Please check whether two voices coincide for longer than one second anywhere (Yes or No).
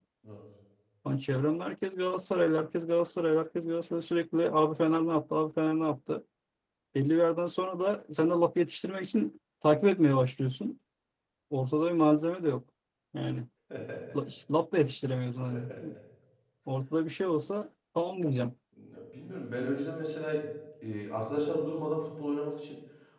No